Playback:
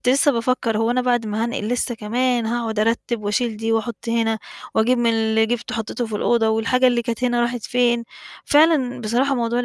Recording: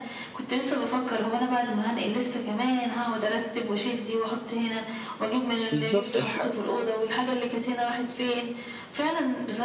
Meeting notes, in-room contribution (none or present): present